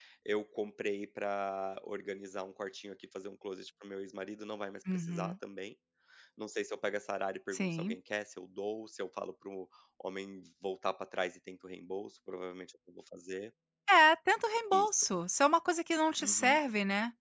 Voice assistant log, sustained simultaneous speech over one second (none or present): none